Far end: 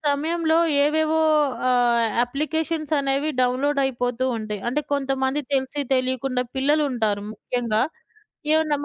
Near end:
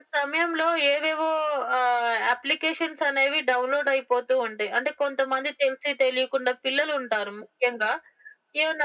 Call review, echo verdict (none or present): present